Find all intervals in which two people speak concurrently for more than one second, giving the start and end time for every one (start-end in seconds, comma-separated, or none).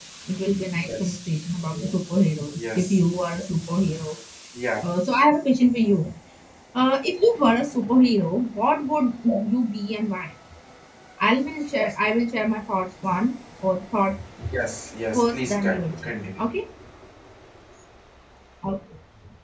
15.1-16.5